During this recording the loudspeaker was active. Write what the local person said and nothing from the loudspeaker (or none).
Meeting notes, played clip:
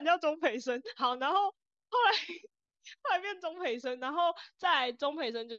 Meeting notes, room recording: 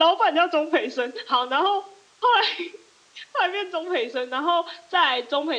none